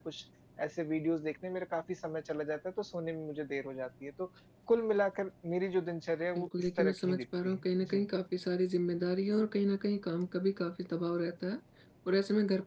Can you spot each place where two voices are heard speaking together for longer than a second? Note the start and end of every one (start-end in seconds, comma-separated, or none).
6.3-8.1